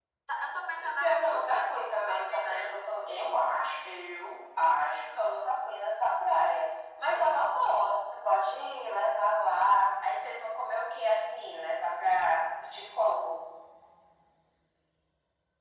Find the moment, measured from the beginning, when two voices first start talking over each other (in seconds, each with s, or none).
1.0 s